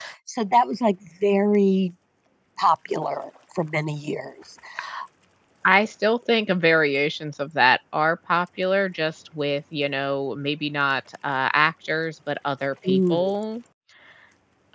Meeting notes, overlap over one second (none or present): none